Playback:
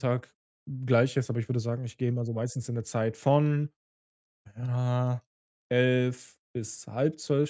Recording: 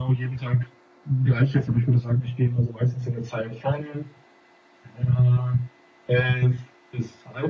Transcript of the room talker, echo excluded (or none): none